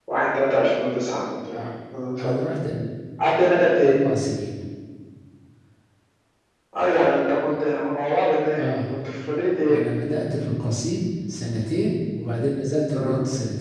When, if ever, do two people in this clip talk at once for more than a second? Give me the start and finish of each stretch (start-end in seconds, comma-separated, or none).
none